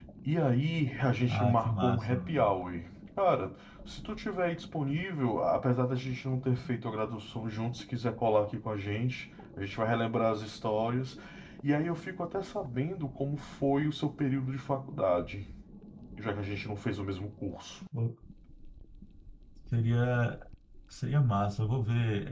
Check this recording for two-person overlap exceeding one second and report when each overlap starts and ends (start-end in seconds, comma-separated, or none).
1.3-2.5